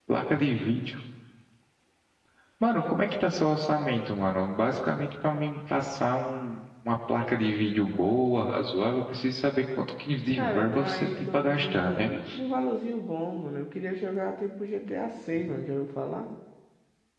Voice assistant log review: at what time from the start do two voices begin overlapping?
10.3 s

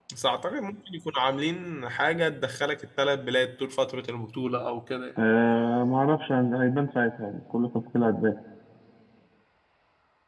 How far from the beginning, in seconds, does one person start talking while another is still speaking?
none

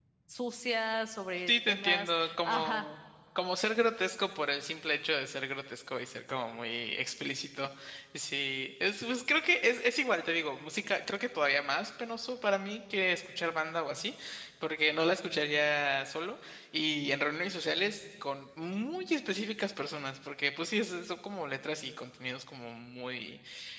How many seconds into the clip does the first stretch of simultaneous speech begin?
1.5 s

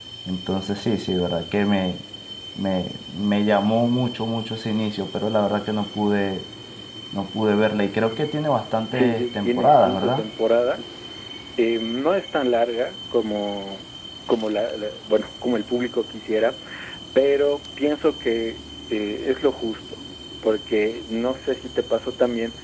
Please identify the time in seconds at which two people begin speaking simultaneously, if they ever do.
8.9 s

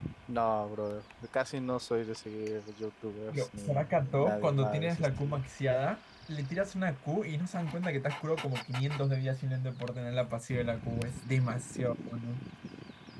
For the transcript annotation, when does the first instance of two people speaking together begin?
3.3 s

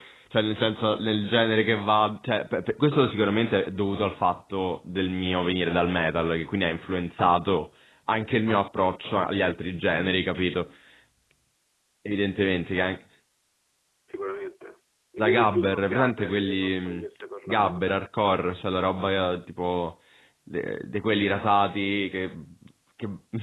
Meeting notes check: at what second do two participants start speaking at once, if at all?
15.2 s

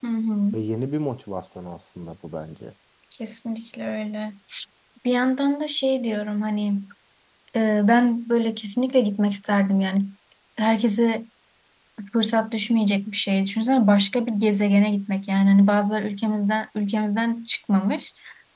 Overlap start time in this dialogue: none

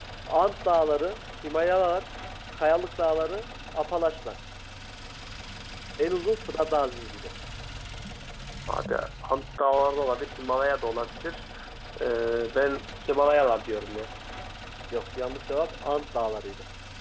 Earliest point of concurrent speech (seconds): none

